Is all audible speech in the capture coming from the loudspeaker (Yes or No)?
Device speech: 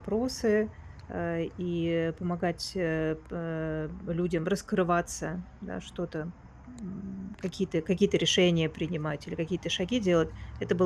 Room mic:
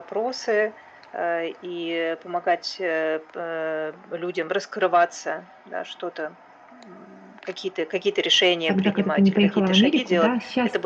No